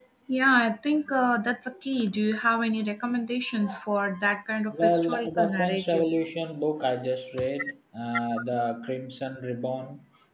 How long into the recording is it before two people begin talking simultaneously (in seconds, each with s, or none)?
4.7 s